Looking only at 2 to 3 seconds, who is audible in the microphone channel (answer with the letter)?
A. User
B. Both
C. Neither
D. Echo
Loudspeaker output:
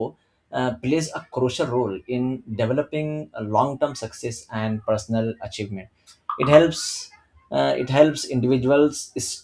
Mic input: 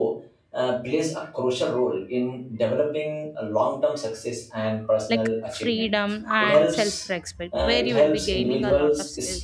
D